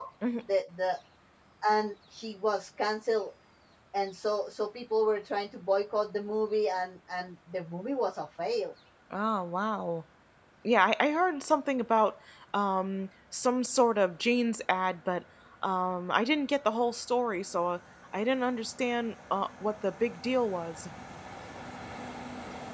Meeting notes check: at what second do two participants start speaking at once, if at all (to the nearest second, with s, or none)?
none